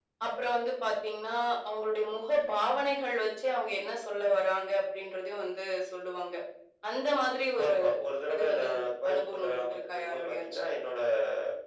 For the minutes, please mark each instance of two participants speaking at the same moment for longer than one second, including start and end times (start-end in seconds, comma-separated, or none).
9.1-10.4